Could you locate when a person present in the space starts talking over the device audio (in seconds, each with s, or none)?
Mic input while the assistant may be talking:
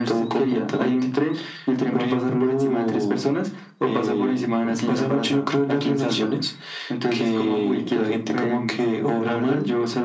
none